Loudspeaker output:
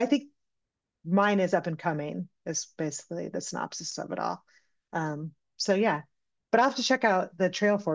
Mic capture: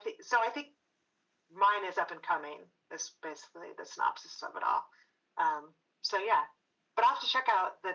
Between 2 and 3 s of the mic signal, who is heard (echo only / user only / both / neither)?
echo only